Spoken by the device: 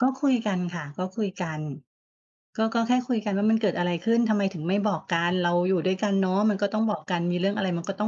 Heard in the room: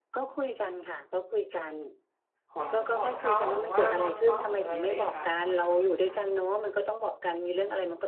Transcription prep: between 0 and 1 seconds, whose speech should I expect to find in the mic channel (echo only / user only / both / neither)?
echo only